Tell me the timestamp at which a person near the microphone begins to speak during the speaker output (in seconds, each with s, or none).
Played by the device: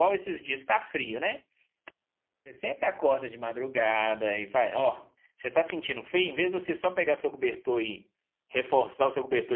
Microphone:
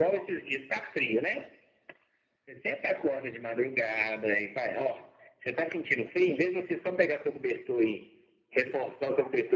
none